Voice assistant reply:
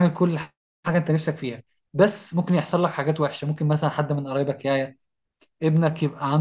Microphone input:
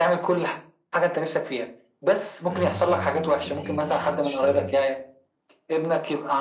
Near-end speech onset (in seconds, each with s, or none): 2.5 s